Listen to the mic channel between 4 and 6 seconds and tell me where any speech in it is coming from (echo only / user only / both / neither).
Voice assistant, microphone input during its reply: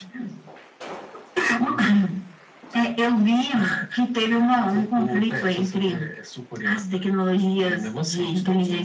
echo only